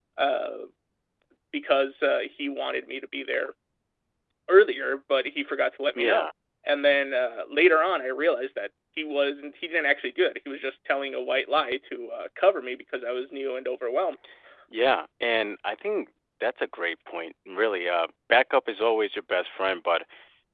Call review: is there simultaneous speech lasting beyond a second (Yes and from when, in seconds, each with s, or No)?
No